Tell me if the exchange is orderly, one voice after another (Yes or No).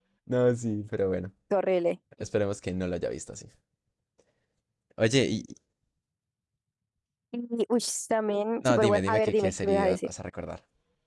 No